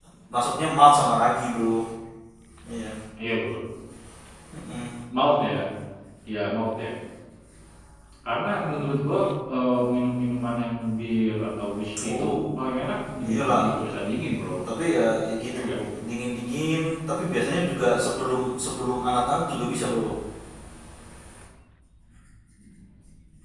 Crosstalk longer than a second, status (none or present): none